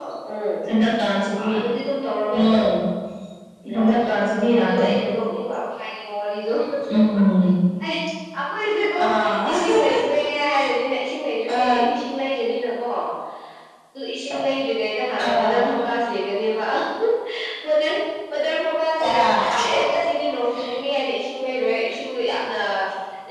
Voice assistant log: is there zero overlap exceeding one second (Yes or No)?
No